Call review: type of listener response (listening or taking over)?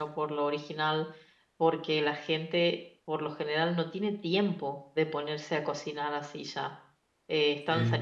listening